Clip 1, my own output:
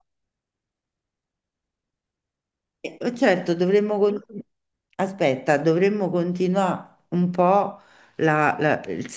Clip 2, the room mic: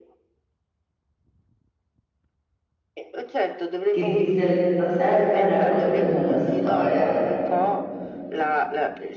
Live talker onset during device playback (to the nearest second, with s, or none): 4 s